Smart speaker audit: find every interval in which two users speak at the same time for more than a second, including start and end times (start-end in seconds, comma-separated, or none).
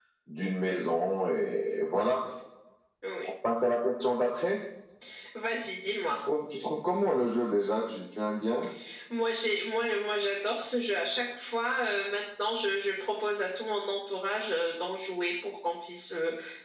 none